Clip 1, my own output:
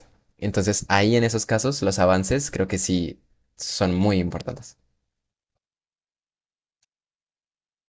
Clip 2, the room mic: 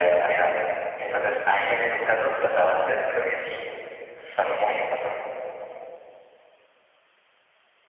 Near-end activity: none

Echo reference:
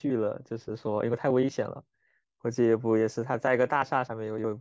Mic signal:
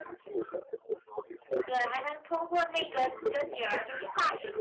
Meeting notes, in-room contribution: present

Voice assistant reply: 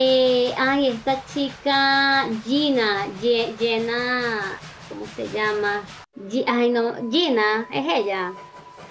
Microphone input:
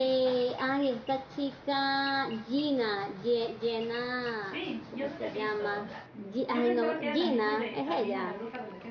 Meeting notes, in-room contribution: present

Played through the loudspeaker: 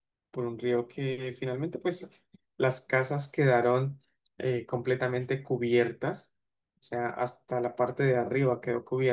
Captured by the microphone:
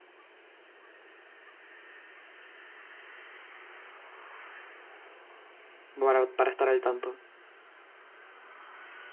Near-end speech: present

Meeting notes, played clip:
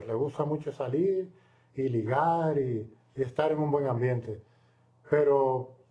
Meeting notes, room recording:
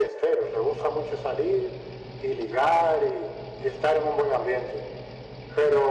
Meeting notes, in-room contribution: none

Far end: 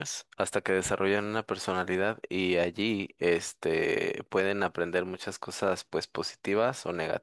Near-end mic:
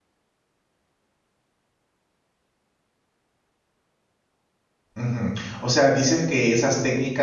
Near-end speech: present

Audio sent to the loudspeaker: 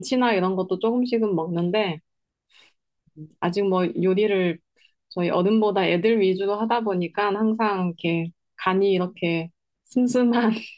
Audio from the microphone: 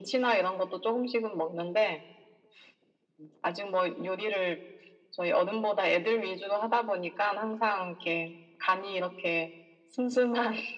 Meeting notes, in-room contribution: none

